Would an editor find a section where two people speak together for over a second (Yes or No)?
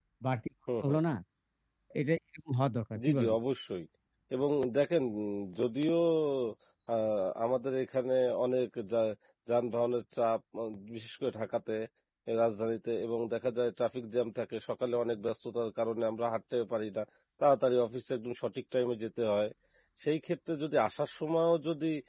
No